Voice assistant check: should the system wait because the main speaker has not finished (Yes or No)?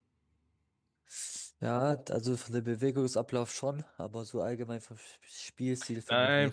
No